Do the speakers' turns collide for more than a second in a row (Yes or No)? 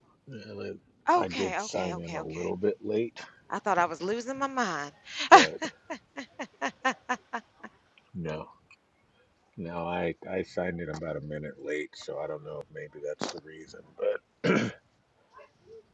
Yes